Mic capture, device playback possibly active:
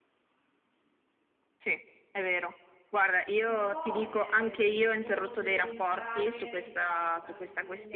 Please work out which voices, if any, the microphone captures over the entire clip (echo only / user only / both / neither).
both